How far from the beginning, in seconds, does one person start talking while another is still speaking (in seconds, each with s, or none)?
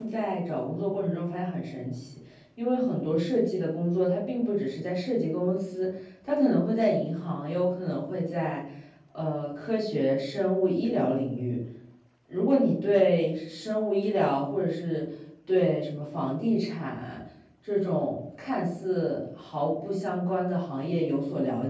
none